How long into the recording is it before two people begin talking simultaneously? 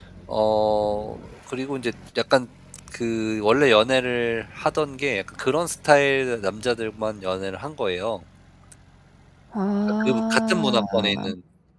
10.0 s

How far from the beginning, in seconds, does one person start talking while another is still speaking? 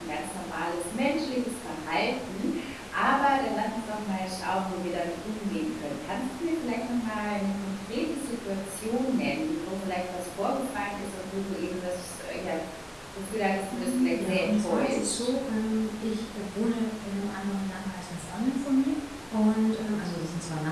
13.7 s

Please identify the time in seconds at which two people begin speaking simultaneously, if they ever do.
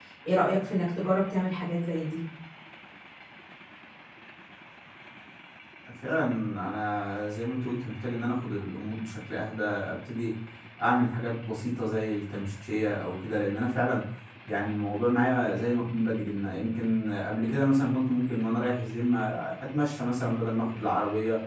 none

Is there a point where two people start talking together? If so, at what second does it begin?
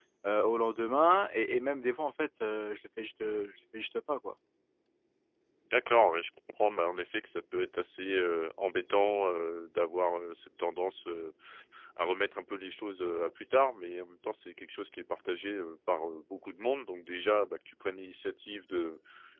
none

